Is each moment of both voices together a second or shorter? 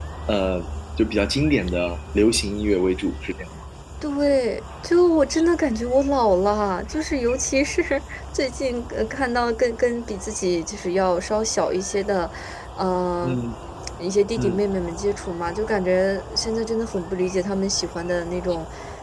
Yes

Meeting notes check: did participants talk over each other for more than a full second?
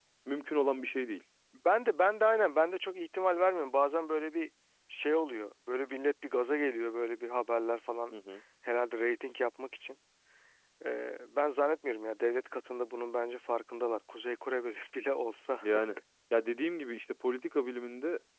No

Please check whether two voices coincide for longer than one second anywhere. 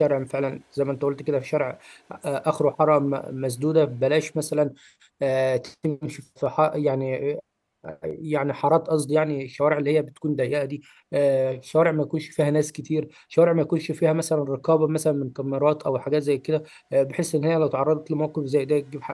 No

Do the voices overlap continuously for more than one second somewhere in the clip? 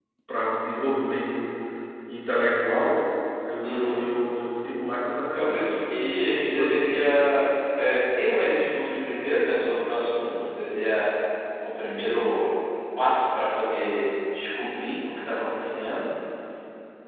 Yes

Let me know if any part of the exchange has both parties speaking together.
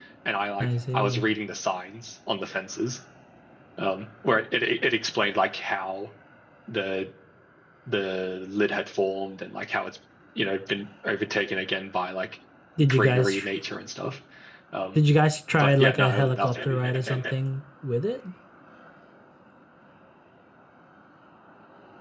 Yes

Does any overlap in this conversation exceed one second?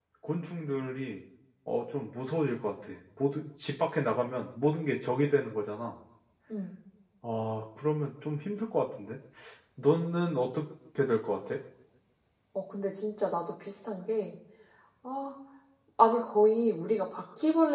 No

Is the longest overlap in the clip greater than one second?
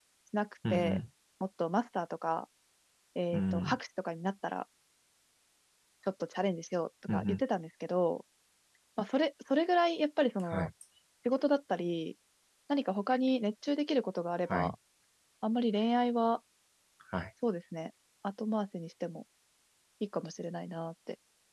No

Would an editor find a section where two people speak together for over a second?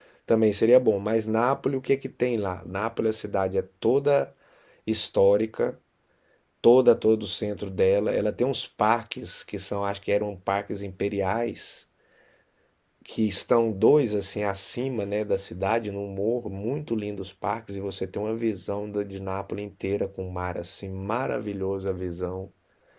No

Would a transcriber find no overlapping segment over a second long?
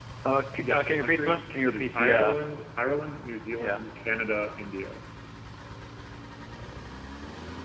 No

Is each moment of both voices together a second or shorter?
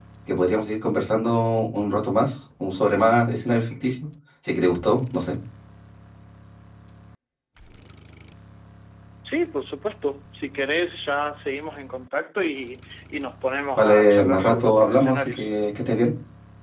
No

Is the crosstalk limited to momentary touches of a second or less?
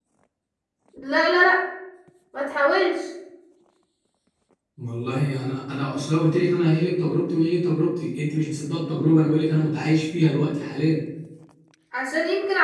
Yes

